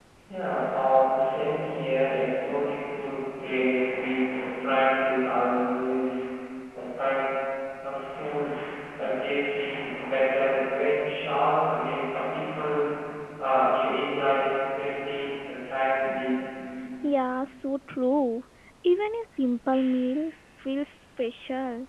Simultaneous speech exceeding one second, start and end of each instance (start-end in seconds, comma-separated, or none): none